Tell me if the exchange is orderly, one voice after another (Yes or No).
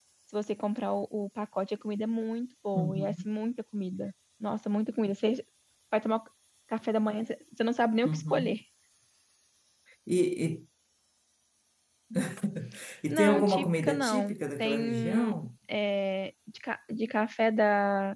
No